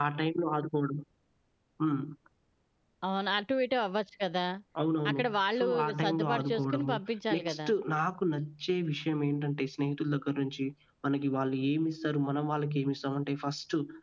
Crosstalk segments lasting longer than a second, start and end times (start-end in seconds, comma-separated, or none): 5.6-6.9